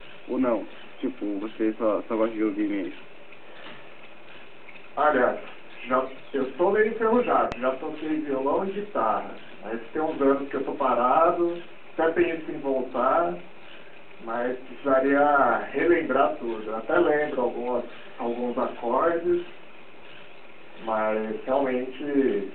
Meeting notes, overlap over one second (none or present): none